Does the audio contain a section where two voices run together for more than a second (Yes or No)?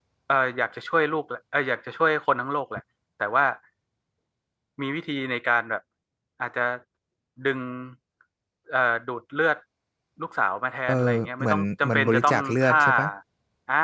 Yes